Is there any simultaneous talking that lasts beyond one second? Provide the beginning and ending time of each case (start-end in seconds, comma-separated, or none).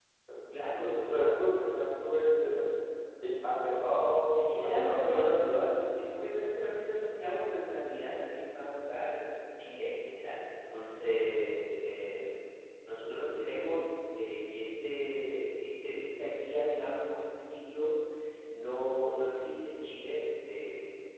4.3-5.7